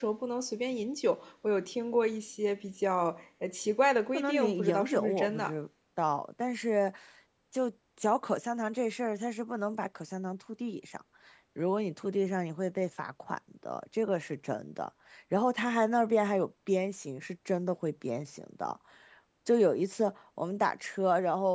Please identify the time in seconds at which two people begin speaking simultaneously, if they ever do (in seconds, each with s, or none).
4.1 s